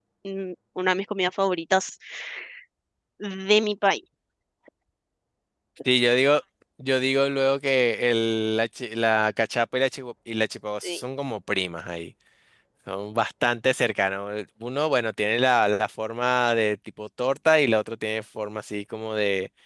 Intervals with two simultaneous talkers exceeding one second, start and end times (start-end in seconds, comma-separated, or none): none